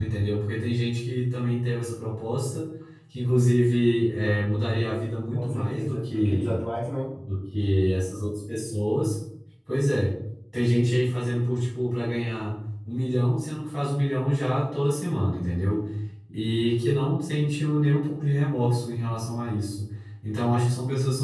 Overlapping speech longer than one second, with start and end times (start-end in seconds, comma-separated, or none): 5.3-6.5